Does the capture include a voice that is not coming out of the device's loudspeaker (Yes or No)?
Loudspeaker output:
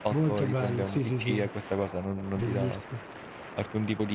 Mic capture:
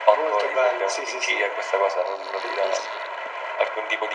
No